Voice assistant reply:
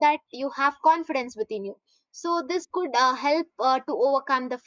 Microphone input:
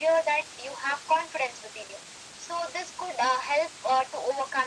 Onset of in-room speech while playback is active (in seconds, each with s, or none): none